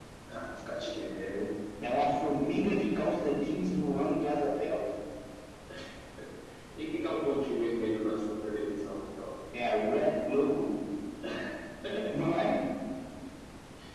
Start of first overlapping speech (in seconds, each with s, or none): none